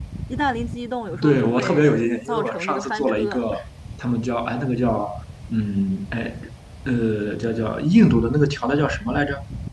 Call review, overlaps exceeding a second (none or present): present